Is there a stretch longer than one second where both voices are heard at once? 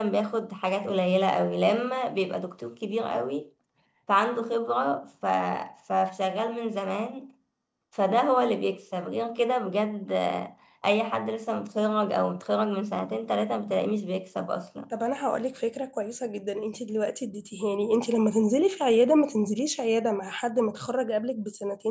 No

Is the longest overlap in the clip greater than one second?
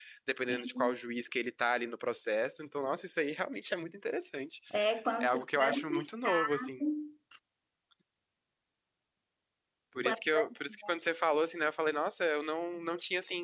Yes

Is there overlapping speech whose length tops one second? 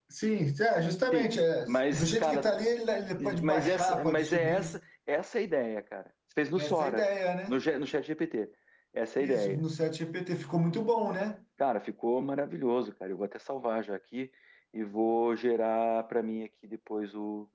Yes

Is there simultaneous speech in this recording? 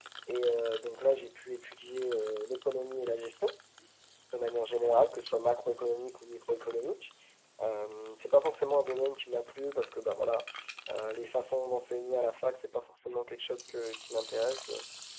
No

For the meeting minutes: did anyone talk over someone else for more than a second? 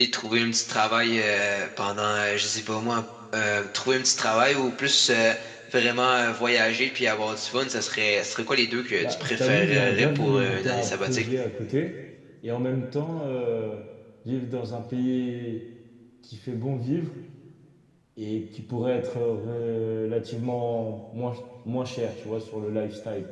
Yes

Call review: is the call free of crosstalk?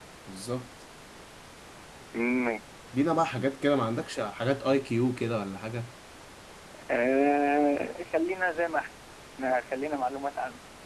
Yes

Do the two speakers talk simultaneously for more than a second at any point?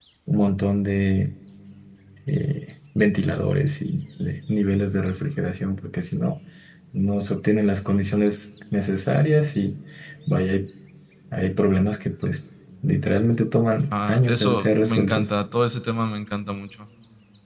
Yes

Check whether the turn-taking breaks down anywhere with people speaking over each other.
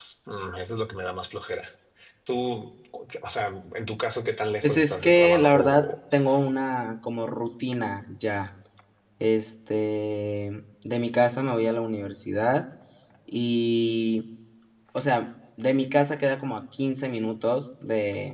Yes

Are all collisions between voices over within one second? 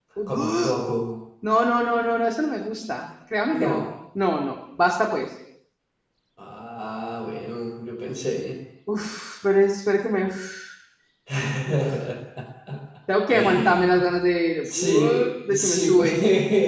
No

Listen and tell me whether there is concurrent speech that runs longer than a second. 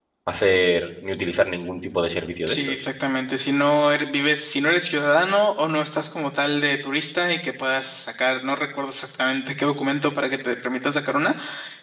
No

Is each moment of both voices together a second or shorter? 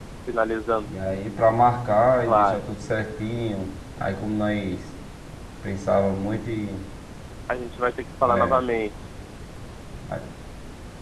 Yes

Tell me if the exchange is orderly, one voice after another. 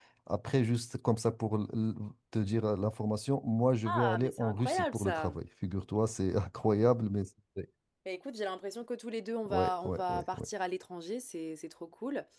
No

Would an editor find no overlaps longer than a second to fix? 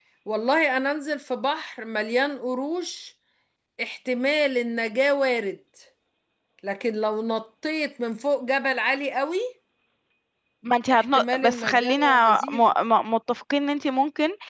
No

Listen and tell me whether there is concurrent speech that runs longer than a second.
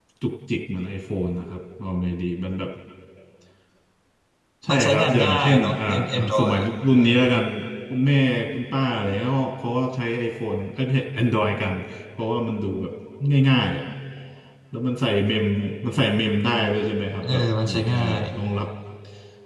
Yes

